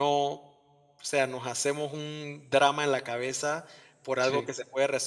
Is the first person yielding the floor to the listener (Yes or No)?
No